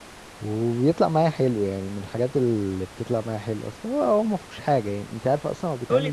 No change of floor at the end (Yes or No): No